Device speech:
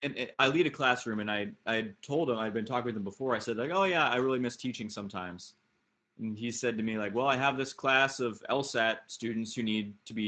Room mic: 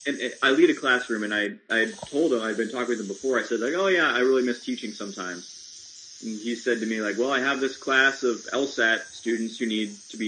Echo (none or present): present